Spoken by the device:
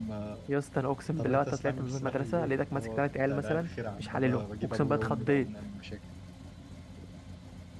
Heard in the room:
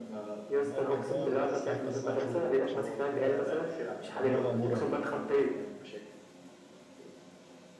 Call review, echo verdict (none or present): present